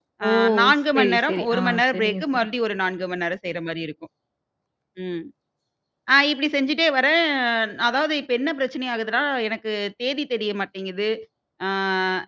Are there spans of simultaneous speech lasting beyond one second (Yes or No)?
Yes